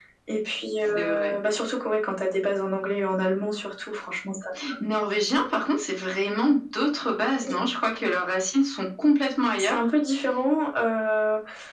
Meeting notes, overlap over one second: none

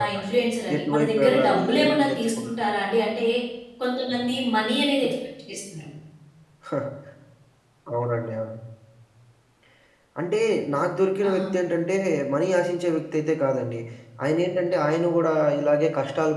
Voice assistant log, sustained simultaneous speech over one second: present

